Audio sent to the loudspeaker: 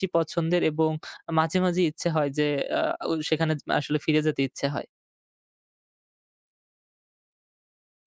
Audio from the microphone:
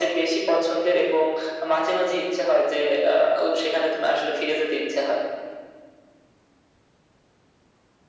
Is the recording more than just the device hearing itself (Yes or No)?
No